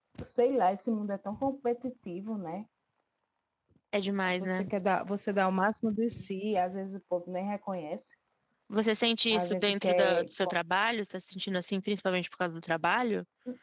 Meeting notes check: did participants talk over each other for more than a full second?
Yes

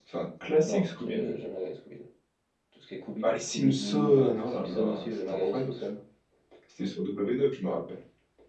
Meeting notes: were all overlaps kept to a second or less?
No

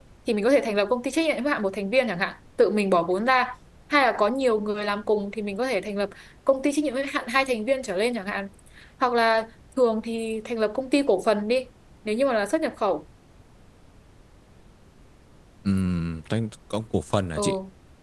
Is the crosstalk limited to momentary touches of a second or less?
Yes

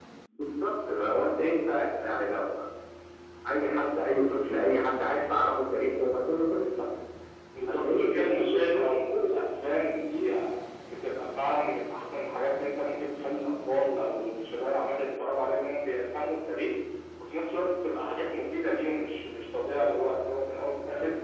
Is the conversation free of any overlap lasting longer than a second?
No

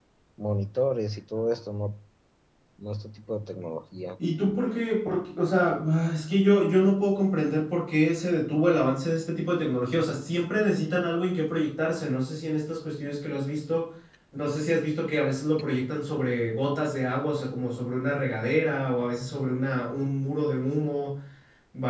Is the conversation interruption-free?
Yes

